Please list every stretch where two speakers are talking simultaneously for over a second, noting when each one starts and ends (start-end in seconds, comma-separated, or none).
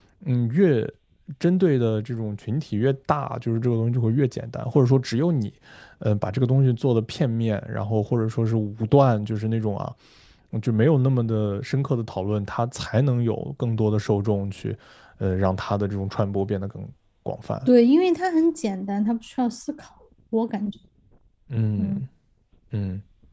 none